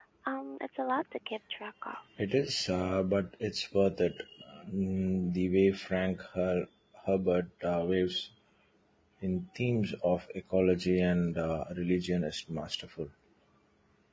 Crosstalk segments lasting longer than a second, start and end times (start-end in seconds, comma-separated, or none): none